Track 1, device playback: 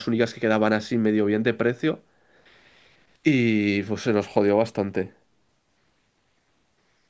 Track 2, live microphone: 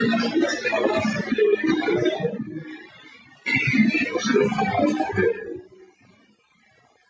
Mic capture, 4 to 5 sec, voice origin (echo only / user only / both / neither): echo only